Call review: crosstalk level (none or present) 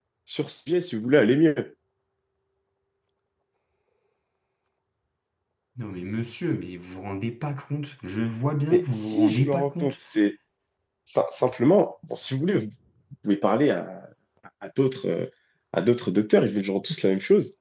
present